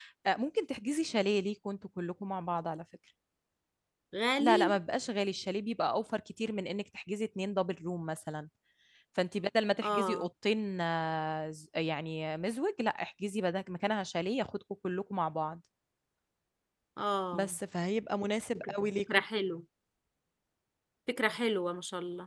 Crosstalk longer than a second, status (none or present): none